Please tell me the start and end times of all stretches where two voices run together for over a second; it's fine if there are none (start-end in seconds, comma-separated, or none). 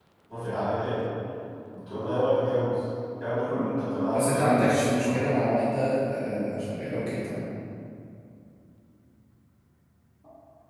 4.1-5.4